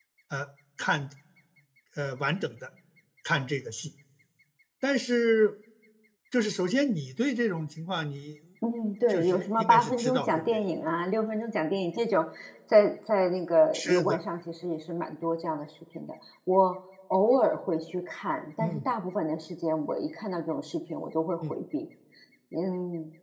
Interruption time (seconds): 9.1 s

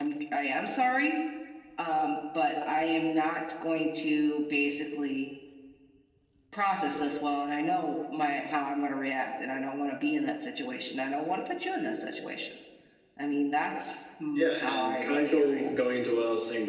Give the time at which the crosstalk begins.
14.4 s

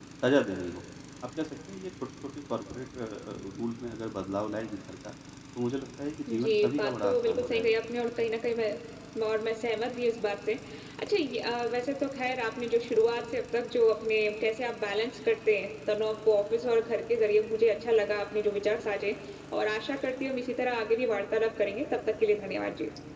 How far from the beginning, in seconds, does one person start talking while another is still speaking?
6.3 s

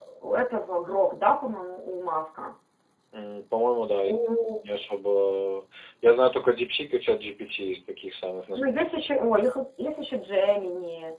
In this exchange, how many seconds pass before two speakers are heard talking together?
none

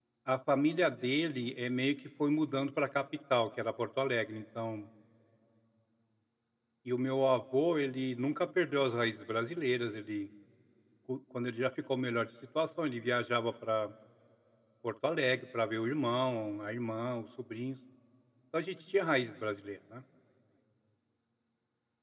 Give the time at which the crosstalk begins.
none

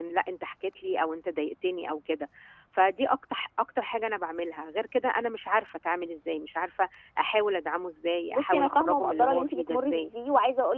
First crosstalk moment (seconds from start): 8.3 s

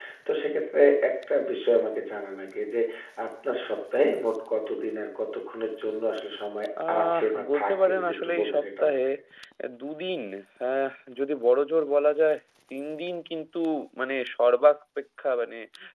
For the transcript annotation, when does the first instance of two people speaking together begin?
6.8 s

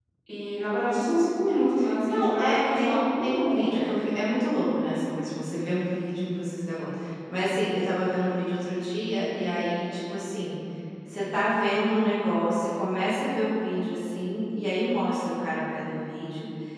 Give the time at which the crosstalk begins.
2.1 s

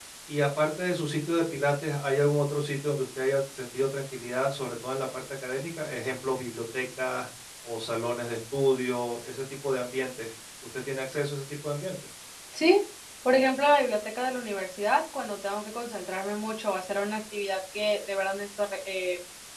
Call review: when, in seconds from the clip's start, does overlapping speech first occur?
none

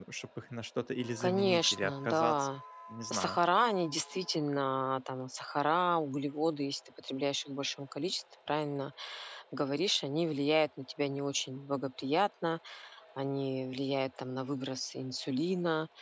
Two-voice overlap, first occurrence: 1.2 s

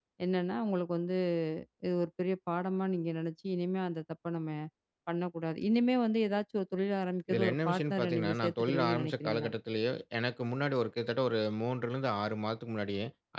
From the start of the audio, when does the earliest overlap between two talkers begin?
7.3 s

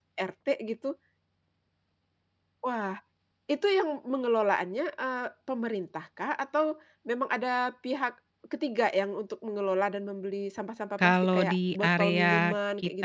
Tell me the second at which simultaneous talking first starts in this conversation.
11.0 s

